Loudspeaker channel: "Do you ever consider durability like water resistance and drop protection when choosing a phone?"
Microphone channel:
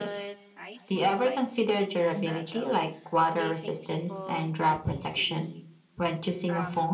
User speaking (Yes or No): Yes